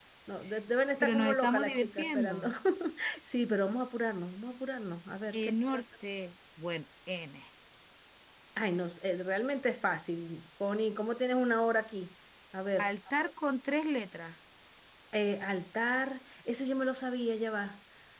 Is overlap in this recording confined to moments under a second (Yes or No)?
No